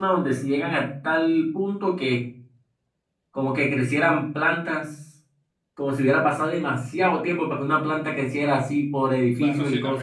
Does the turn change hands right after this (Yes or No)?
Yes